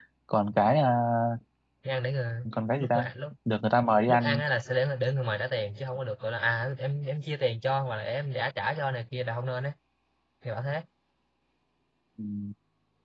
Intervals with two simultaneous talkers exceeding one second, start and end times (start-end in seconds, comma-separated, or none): none